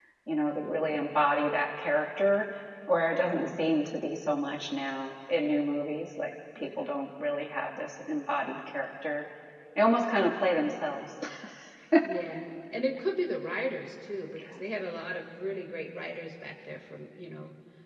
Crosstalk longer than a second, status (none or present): none